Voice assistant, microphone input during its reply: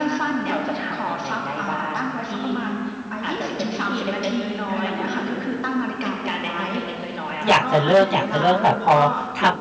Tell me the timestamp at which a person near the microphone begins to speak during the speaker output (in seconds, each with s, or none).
7.5 s